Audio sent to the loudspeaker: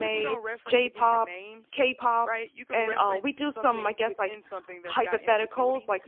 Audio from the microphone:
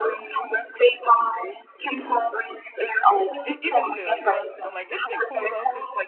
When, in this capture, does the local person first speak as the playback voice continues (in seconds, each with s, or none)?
3.5 s